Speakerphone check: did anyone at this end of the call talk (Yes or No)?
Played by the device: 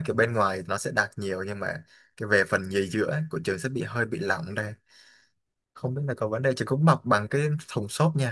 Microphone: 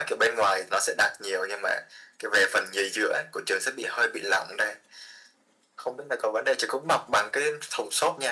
No